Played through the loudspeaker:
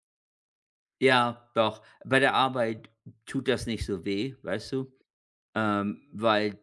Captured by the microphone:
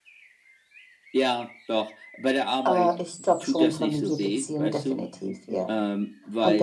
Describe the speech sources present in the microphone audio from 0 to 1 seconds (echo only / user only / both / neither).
neither